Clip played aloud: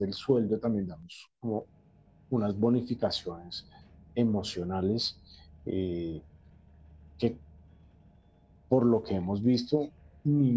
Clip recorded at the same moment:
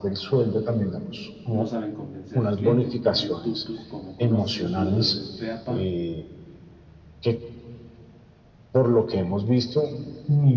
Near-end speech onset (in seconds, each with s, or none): 1.5 s